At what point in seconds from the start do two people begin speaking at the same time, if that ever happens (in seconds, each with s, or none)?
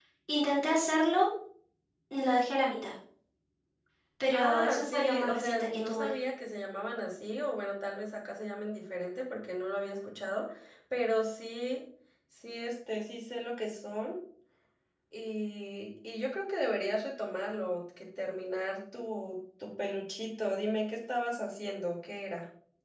4.3 s